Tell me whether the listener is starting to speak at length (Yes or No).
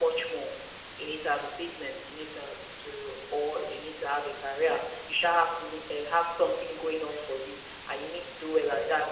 No